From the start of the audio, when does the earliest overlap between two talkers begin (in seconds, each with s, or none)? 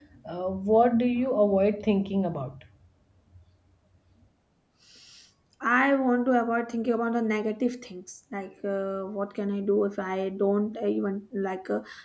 none